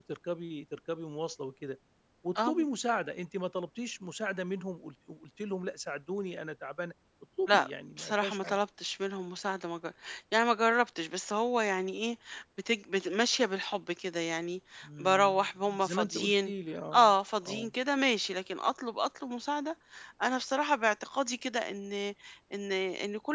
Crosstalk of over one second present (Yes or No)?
Yes